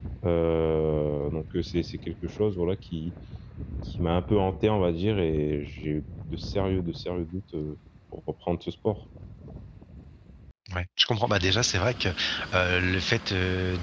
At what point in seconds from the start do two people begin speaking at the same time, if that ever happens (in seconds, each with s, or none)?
none